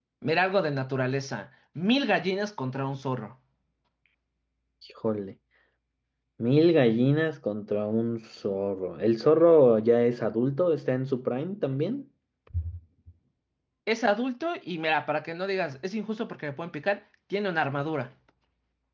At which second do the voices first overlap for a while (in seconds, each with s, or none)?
none